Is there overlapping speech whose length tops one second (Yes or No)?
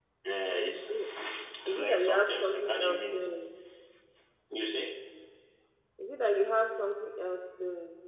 Yes